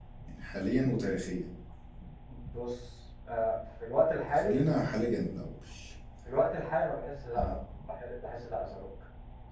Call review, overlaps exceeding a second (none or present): none